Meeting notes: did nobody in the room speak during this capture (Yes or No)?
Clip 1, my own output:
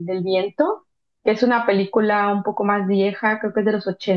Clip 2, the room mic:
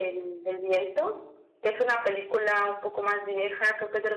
Yes